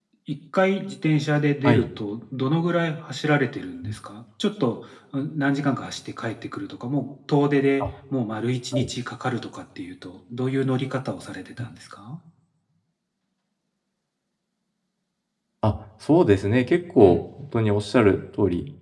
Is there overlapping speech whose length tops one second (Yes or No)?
No